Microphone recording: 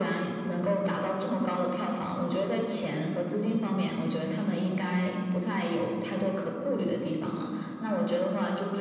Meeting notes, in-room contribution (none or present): none